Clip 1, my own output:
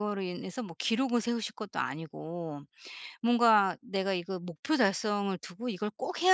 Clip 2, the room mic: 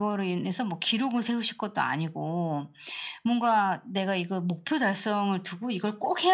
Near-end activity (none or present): none